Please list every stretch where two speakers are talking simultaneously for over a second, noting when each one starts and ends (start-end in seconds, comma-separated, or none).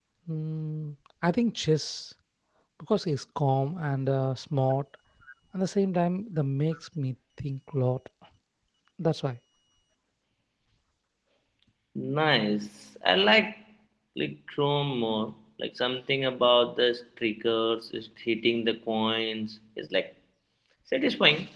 none